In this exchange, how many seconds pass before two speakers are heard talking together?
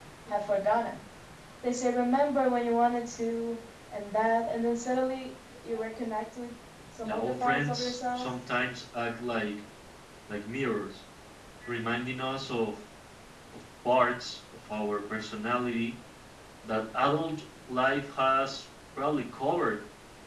7.0 s

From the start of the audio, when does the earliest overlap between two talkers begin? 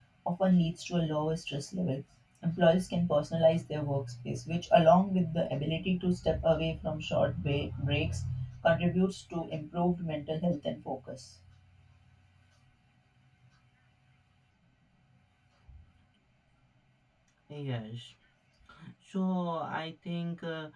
none

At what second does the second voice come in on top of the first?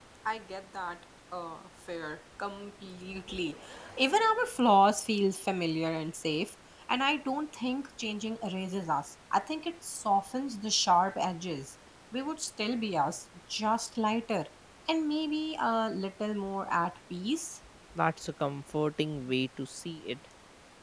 none

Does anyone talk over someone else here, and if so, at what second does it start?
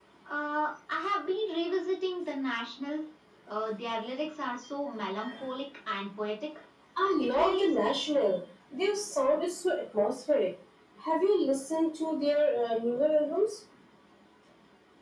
7.2 s

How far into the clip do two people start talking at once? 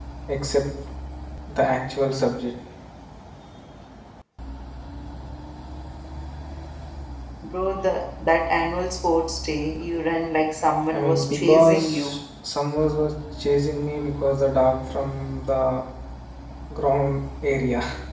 10.9 s

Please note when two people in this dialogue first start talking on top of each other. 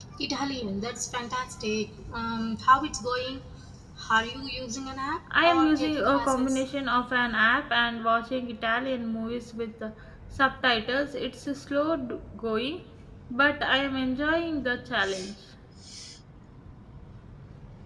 5.3 s

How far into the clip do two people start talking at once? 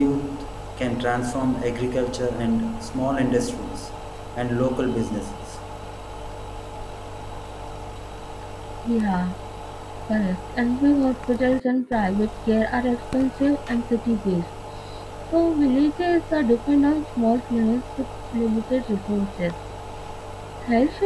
none

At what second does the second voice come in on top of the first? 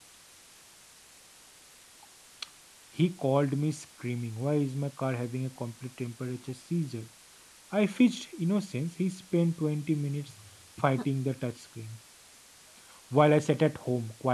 none

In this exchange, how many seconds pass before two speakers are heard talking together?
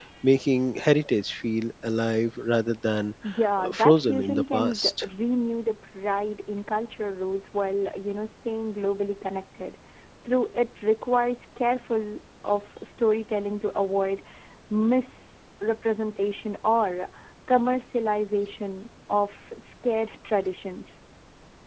3.6 s

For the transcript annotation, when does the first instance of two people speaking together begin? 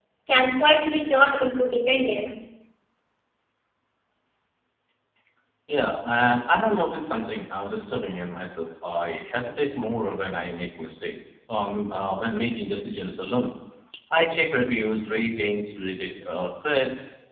none

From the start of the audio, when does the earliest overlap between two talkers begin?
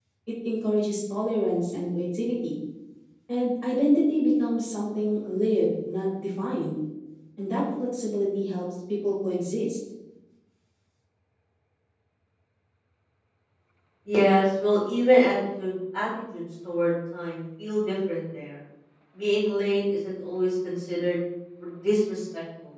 none

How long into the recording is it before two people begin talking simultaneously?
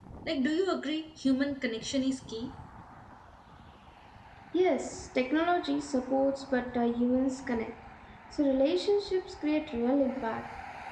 none

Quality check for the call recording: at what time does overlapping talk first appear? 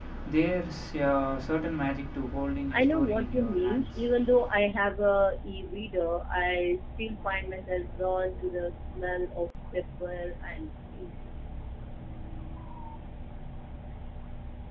2.7 s

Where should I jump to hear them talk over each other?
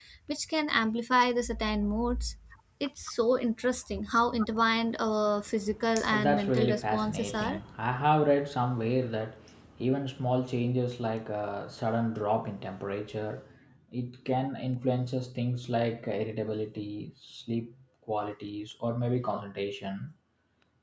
6.0 s

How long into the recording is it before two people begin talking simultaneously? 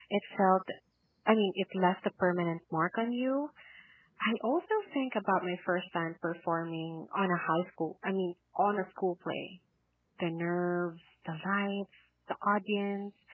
none

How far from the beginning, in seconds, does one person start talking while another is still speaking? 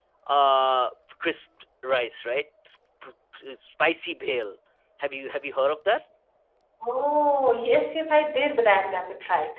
none

